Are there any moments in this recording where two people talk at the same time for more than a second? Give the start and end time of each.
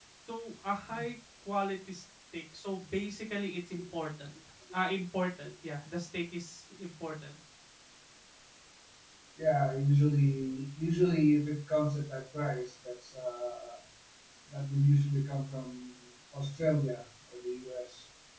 none

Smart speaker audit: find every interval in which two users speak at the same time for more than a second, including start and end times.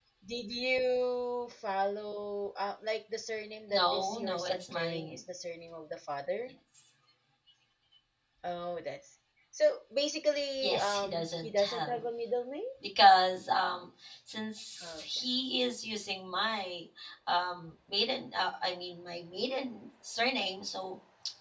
3.7-5.2, 10.6-12.0

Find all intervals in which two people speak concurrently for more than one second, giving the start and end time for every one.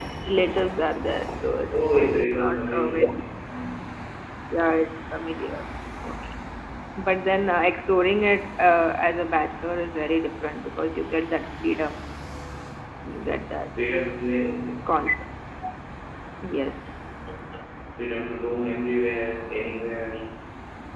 1.7-3.0

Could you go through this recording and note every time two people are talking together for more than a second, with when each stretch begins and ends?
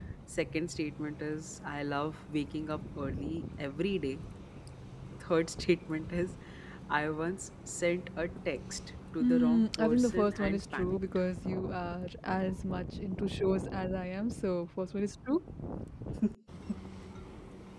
9.2-11.0

